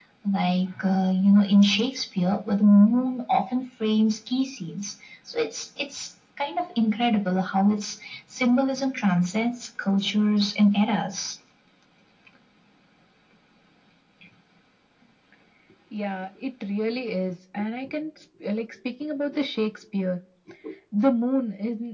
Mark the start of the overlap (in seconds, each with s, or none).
none